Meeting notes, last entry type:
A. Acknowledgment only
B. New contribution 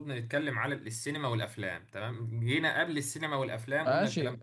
B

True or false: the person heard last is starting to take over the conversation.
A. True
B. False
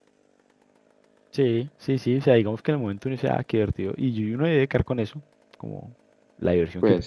B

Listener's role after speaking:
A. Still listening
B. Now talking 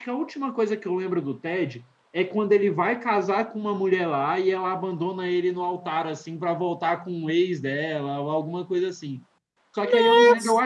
A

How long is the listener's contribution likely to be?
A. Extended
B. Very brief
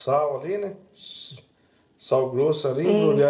B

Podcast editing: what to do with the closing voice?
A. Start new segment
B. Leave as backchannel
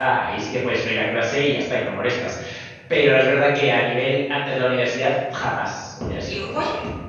A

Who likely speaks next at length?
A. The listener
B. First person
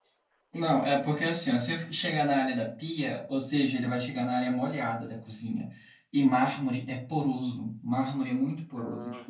B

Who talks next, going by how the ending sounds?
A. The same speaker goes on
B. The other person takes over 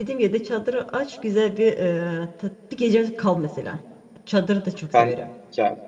B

